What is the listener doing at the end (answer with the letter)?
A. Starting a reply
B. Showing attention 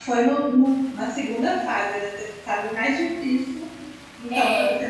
B